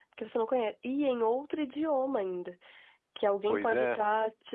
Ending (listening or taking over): listening